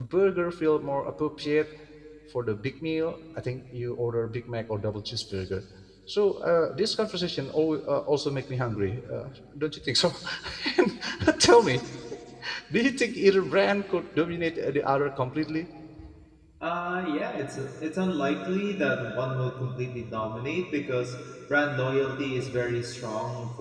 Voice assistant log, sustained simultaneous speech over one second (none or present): none